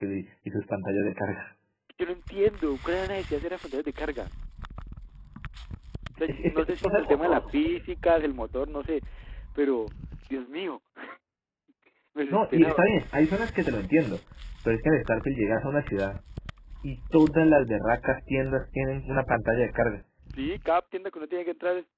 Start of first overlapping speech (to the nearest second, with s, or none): 6 s